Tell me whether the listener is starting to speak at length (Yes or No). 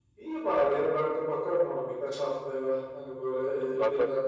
No